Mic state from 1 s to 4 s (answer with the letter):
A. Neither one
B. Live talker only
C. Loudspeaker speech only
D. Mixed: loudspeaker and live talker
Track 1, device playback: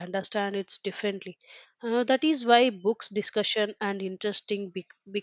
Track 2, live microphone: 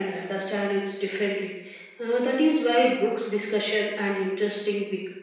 C